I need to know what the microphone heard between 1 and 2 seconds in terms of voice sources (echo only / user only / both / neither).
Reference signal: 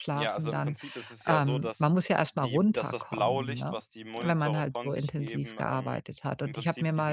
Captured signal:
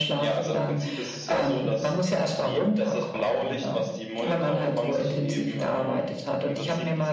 echo only